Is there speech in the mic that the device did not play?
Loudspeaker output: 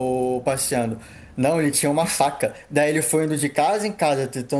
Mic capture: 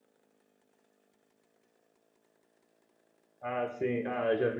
Yes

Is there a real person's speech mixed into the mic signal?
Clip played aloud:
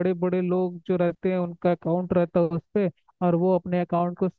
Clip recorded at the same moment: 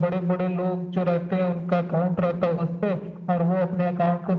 No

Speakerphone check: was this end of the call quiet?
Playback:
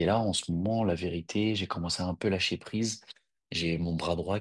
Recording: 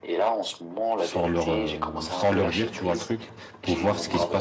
No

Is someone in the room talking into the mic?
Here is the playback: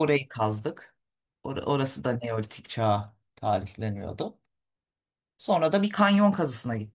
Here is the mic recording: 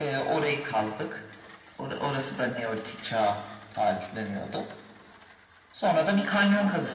Yes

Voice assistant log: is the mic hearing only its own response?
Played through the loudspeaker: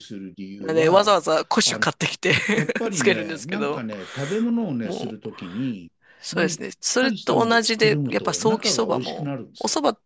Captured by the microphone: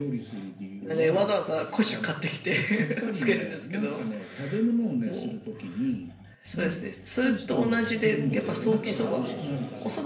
No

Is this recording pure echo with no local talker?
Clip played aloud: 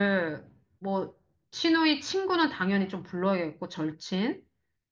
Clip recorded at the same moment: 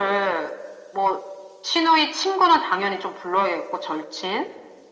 Yes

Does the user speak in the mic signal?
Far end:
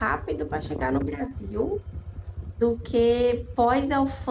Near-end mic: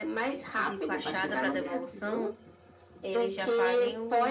Yes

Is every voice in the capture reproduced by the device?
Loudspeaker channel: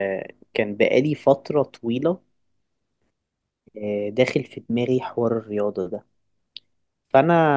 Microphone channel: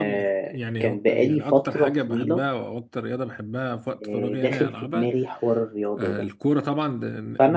No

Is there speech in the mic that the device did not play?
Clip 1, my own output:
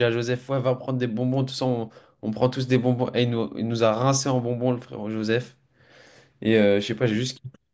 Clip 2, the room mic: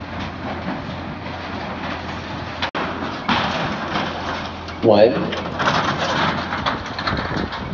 Yes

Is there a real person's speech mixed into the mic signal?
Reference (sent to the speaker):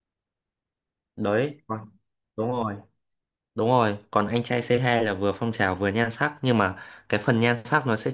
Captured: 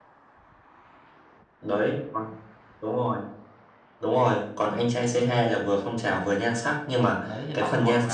Yes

